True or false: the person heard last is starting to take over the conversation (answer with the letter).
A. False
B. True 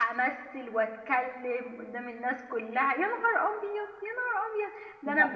A